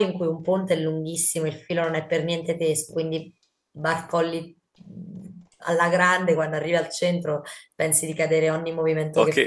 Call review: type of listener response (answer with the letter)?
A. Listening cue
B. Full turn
B